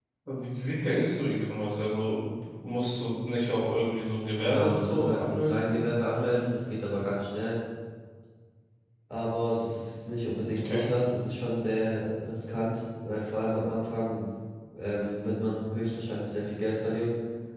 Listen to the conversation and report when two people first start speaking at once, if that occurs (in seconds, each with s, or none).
4.4 s